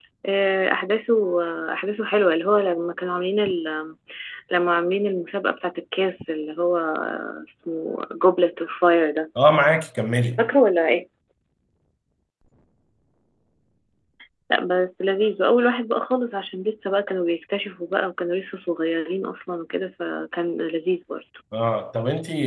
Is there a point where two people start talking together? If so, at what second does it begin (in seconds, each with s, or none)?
none